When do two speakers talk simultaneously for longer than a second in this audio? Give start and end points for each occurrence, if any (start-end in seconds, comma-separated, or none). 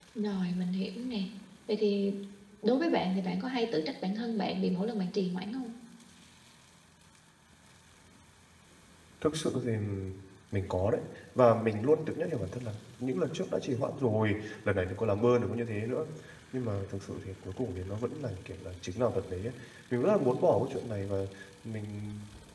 none